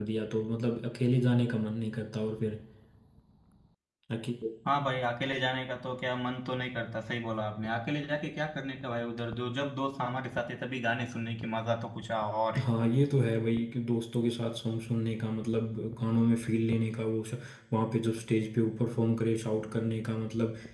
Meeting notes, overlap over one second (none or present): none